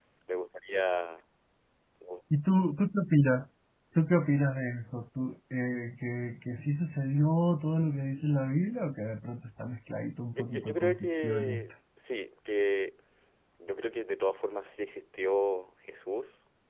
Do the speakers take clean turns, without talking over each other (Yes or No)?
No